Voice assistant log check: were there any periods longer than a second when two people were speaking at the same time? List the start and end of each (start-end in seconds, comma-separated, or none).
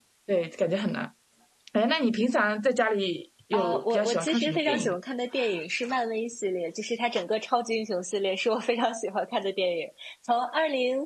3.5-4.9